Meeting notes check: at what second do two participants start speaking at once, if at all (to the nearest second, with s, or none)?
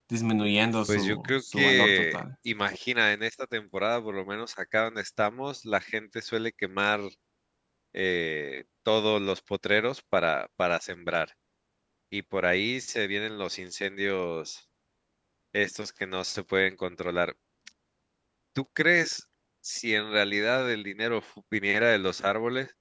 1 s